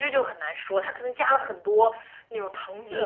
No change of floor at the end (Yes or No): No